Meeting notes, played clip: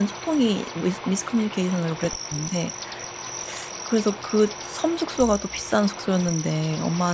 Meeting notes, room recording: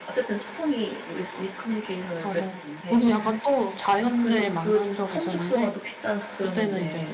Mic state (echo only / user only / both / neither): both